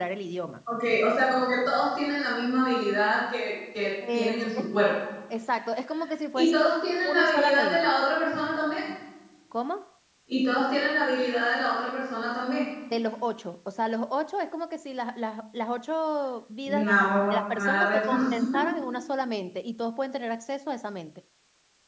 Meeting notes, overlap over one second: present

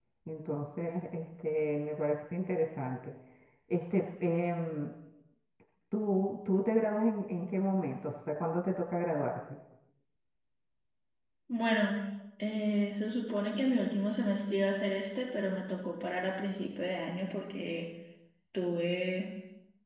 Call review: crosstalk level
none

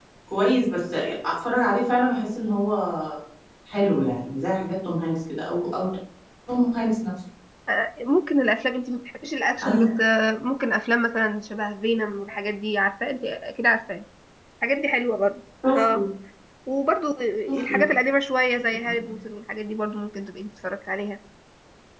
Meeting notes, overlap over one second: none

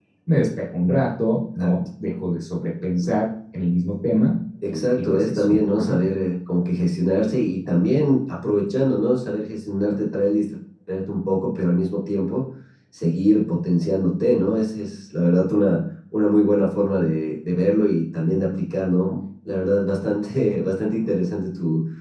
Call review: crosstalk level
present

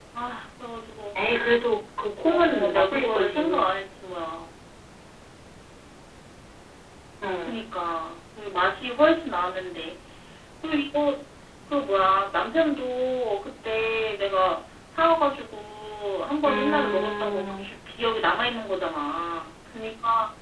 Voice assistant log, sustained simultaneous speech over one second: present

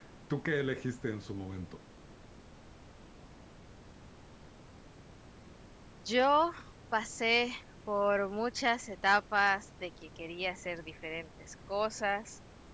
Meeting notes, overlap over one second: none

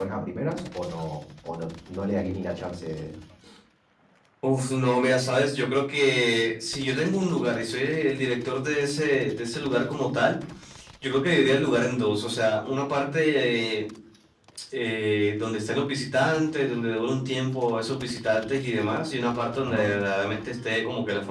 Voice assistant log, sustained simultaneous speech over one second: none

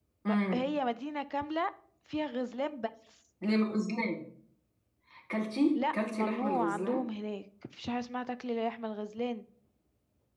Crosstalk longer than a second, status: present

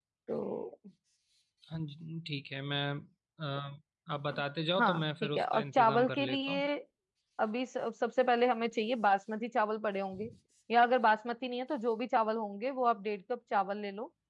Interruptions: present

